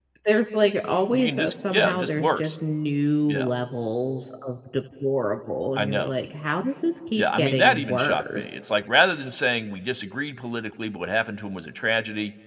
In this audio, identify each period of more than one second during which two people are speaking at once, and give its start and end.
1.1-2.6, 7.2-8.6

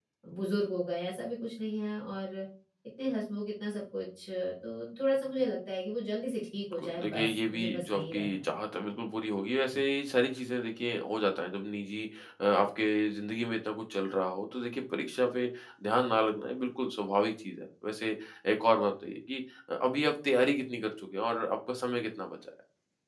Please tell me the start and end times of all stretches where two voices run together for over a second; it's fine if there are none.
6.7-8.5

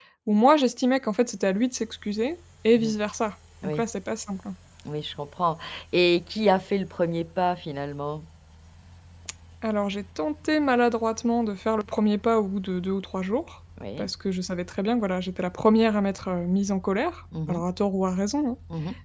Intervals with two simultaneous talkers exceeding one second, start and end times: none

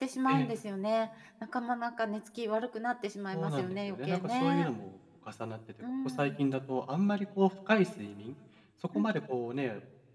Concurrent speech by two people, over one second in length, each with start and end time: 3.3-4.7

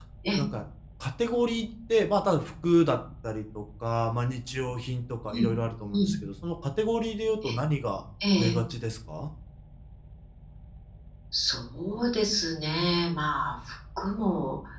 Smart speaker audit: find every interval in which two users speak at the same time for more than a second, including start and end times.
none

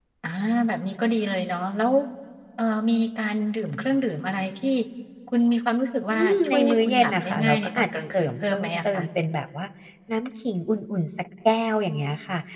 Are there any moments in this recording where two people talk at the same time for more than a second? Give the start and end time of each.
6.1-9.0

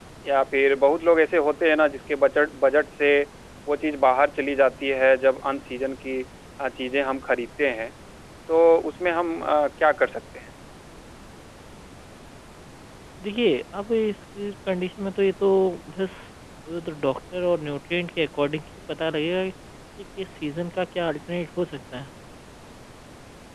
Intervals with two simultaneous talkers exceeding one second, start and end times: none

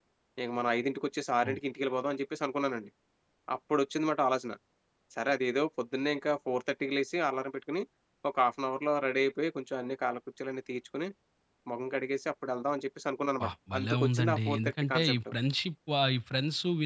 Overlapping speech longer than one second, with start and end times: 13.5-15.2

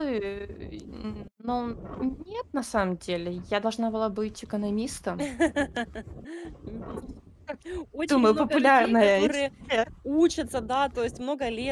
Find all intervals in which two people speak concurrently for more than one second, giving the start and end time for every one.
8.1-9.4

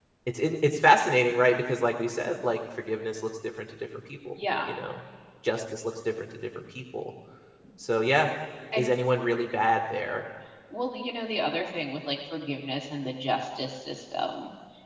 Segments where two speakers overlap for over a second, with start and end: none

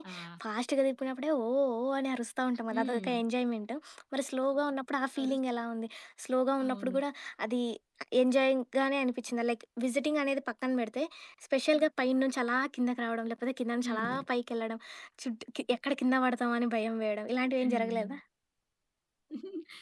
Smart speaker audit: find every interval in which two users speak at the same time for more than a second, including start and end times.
none

